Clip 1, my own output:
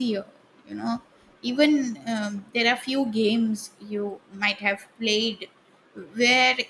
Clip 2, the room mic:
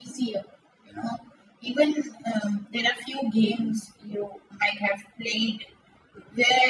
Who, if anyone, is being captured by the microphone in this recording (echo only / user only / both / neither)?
echo only